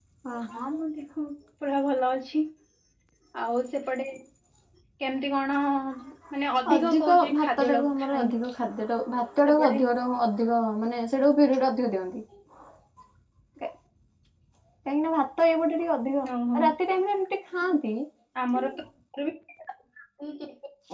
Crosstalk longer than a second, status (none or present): present